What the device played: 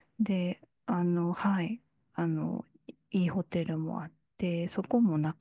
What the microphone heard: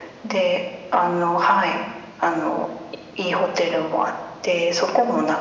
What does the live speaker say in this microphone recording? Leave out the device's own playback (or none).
none